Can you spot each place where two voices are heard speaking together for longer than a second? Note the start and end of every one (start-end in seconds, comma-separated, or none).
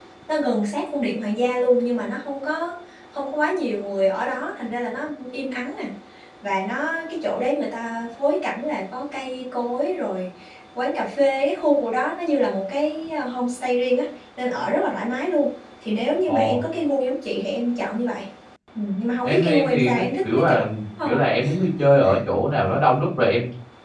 19.2-20.6